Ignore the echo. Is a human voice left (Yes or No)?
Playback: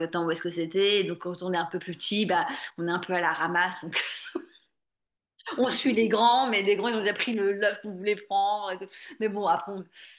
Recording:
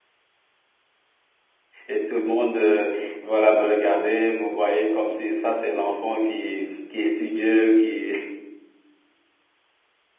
Yes